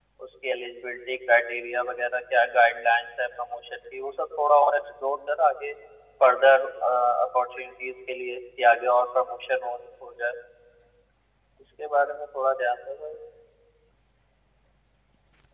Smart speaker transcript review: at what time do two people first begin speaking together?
none

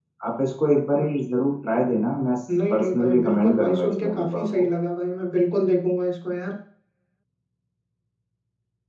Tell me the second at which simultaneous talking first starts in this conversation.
2.7 s

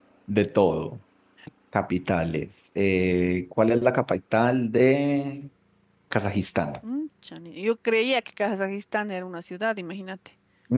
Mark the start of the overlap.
none

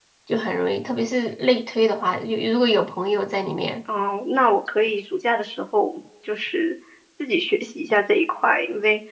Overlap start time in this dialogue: none

